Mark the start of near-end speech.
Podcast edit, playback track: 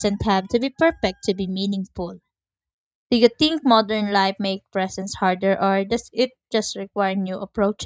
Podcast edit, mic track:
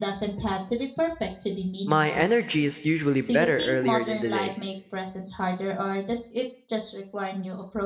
2 s

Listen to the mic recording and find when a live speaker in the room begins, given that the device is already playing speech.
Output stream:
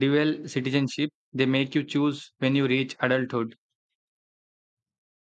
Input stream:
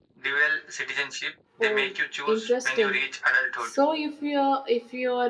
2 s

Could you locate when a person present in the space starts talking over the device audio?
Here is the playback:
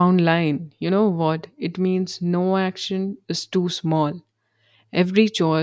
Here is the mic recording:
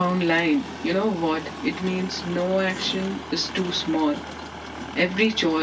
none

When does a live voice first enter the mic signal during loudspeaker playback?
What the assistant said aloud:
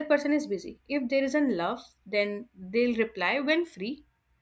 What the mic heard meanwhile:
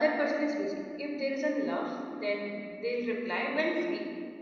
none

